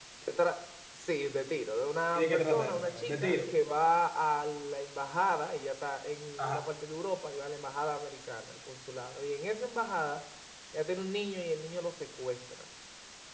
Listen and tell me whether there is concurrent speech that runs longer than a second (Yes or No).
Yes